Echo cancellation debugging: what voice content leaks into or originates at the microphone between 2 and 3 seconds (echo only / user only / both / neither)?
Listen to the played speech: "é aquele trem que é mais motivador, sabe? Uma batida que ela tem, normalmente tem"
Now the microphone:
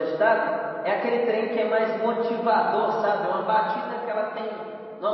echo only